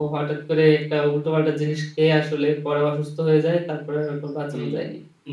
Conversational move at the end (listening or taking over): taking over